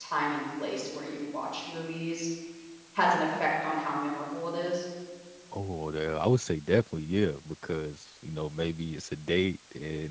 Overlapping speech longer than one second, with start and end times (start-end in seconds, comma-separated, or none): none